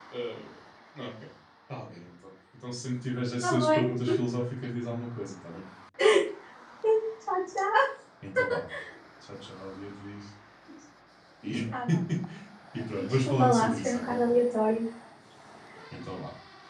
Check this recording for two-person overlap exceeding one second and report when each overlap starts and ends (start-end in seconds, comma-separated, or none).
12.9-14.2